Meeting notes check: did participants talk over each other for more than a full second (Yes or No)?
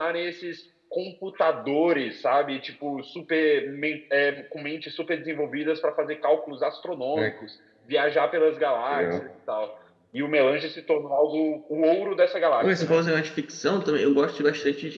No